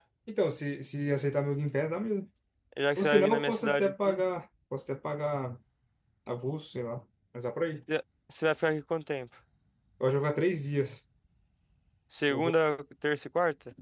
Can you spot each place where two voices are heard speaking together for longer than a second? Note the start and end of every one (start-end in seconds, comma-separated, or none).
3.0-4.2